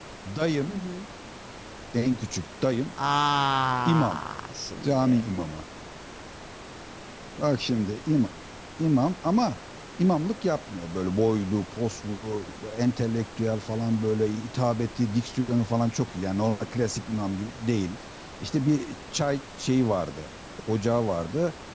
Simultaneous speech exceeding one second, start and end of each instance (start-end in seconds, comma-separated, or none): none